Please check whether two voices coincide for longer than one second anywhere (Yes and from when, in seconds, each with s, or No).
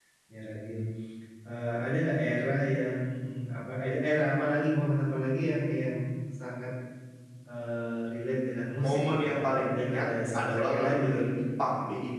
Yes, from 8.8 s